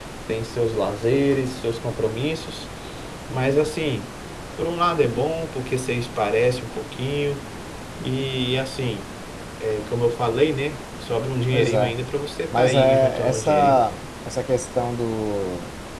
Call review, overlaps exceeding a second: present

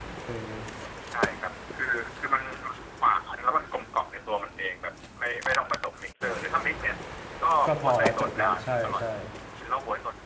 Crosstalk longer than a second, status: present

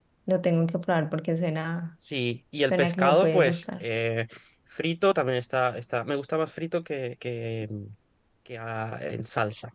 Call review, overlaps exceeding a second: present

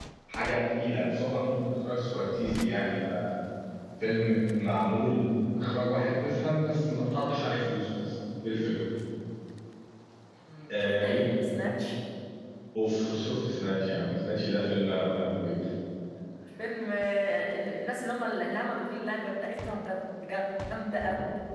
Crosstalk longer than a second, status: none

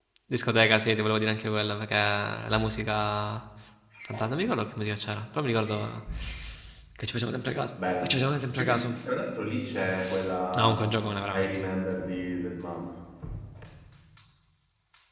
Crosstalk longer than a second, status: none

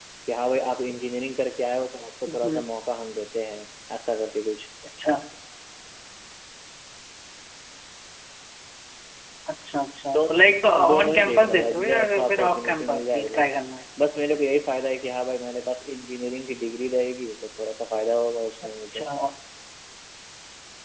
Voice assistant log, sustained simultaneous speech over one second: present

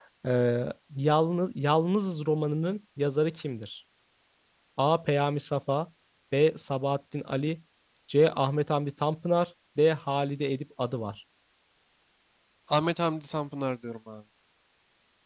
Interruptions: none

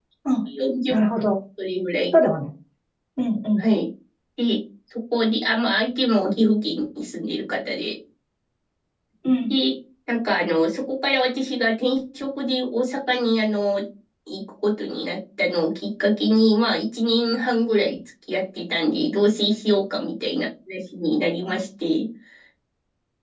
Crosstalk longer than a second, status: none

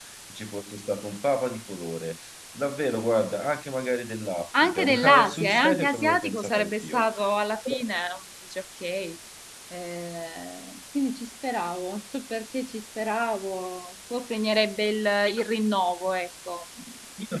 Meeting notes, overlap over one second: present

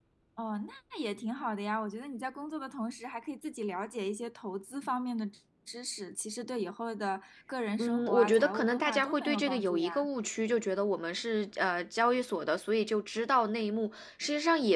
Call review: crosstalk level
present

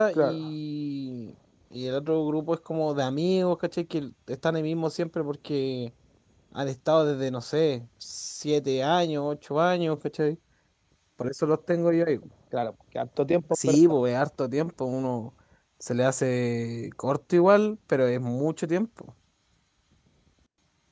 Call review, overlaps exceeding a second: none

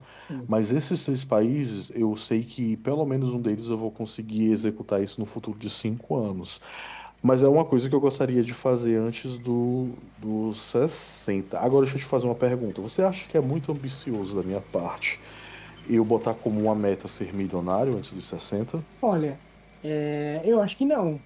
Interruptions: none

